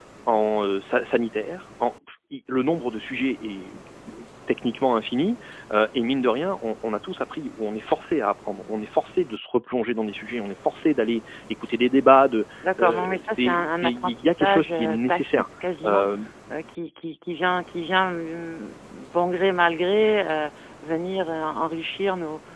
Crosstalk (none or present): present